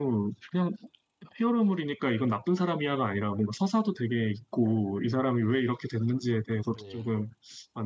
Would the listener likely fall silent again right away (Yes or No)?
Yes